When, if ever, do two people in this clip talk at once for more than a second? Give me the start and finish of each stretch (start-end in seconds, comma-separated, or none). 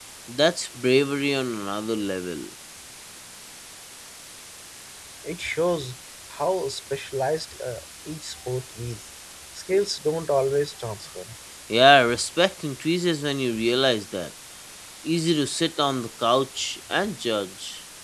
none